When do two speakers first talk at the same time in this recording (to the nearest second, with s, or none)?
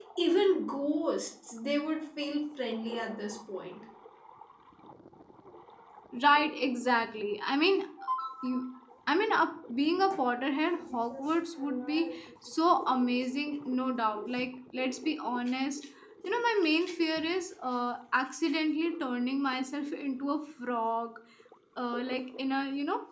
none